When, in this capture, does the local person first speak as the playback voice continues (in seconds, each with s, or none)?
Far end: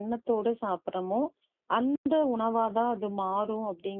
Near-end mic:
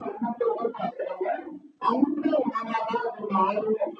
none